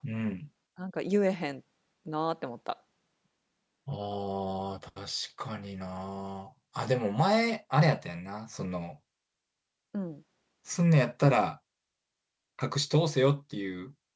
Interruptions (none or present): none